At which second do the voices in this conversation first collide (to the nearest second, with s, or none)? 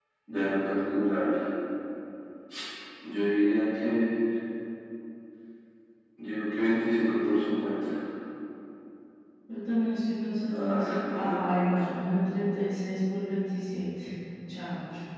11 s